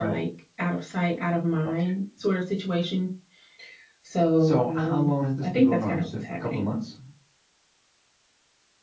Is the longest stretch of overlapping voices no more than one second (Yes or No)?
No